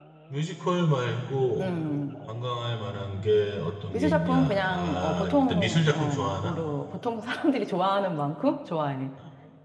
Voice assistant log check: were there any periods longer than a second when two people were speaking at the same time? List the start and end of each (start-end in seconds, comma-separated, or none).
3.9-6.5